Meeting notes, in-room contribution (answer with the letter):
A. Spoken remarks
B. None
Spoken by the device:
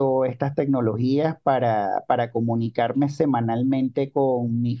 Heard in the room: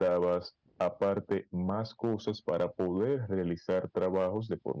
A